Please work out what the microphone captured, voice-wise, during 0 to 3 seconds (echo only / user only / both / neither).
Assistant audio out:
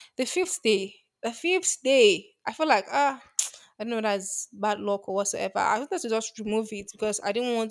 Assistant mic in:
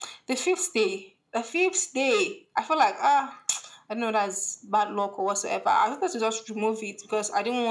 echo only